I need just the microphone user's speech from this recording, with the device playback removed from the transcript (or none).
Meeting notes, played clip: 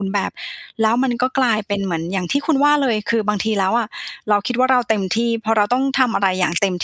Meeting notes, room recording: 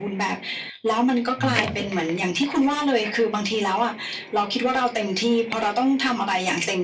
เรื่อยครับ